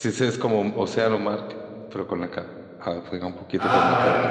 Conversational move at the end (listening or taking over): taking over